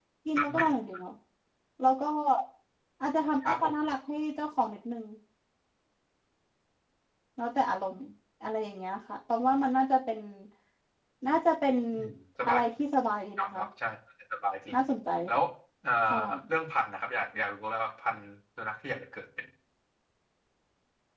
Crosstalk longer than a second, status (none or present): none